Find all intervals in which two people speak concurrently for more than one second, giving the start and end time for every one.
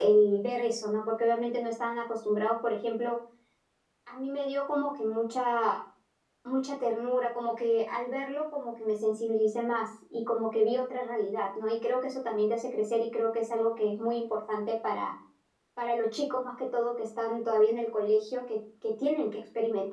none

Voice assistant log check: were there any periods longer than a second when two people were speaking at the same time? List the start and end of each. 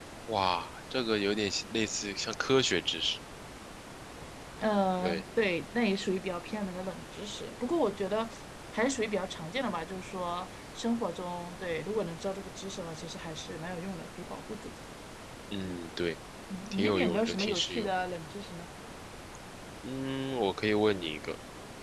16.7-17.9

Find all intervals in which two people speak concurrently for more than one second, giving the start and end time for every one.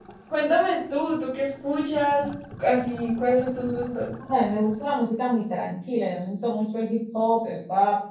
none

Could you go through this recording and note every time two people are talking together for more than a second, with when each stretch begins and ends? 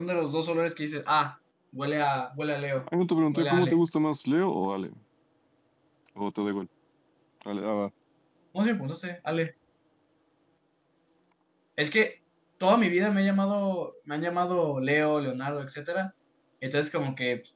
none

